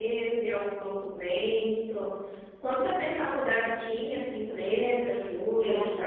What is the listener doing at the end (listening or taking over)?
taking over